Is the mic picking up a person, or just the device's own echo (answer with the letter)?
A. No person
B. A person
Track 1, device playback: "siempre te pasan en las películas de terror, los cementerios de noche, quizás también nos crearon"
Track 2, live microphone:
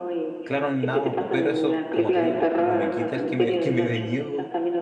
B